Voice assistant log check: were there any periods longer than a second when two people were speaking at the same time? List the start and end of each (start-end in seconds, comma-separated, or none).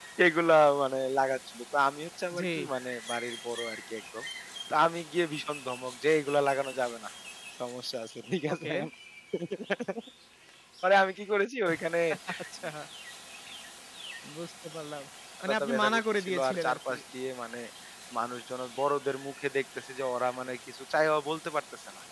15.5-16.9